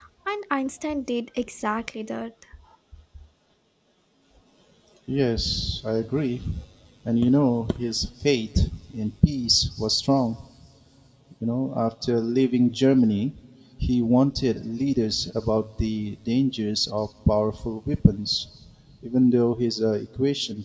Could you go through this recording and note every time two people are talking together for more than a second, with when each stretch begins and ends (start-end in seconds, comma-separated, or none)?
none